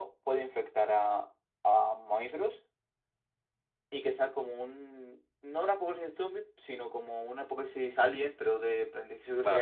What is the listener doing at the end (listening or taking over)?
taking over